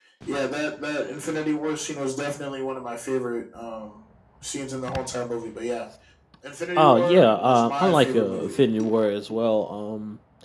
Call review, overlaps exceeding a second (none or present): present